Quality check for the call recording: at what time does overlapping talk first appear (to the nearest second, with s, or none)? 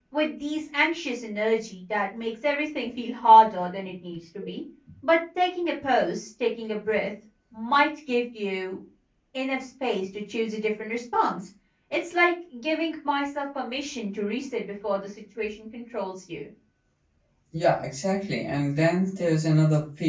none